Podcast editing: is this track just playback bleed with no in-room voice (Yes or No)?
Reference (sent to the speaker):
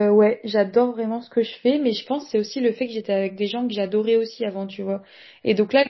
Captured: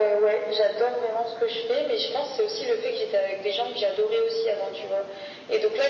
Yes